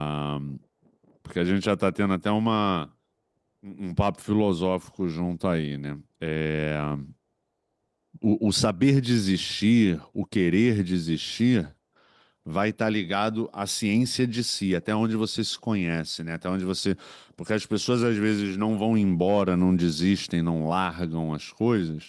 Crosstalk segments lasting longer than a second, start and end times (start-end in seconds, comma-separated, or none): none